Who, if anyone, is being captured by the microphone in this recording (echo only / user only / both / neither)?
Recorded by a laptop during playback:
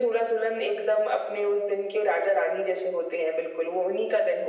echo only